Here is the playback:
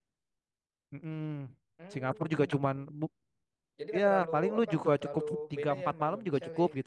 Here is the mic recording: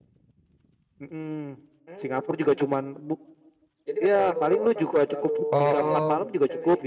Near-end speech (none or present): present